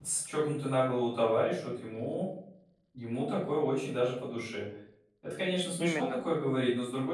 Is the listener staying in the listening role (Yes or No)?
Yes